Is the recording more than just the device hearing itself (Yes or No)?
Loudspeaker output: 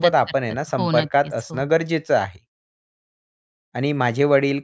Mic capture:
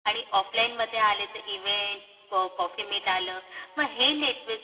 Yes